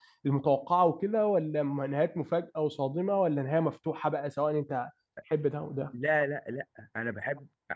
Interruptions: none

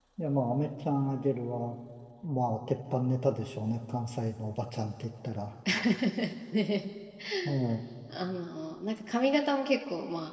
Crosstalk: none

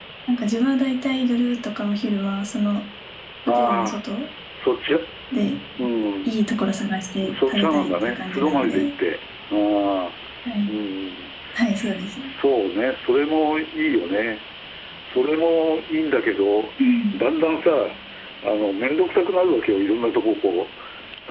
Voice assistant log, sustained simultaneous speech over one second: present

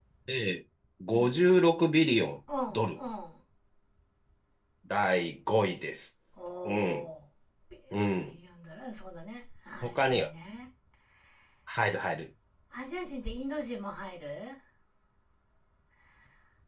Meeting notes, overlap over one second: none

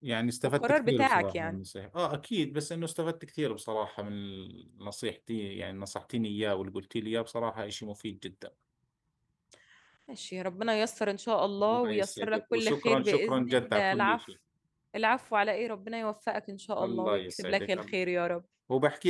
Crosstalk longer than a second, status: present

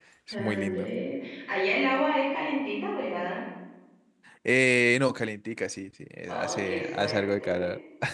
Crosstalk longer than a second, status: present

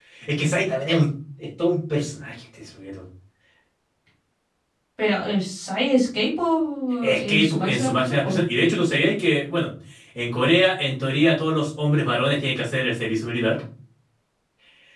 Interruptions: present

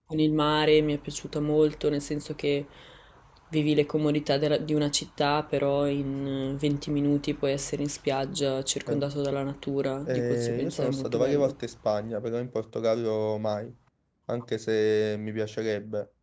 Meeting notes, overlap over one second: present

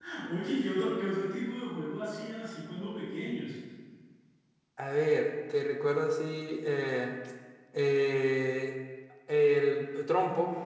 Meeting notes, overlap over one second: none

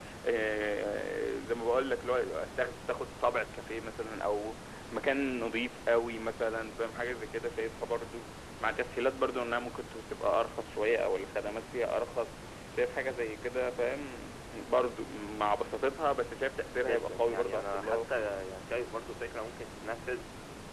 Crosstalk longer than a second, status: present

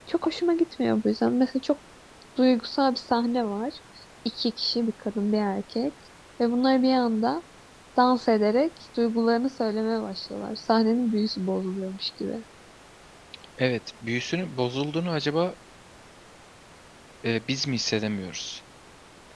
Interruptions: none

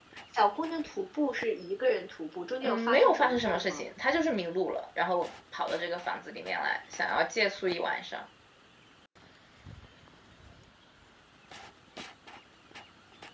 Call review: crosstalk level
present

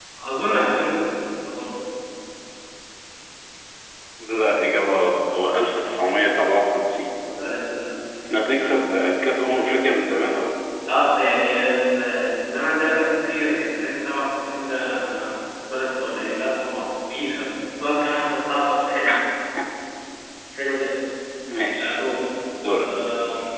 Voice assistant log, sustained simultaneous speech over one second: none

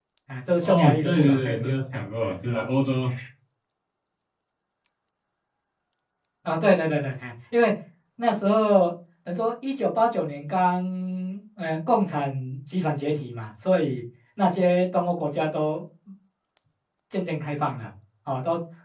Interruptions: present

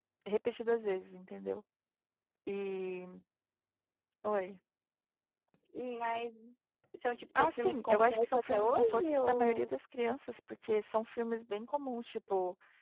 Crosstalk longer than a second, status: present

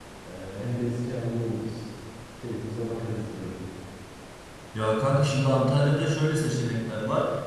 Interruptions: none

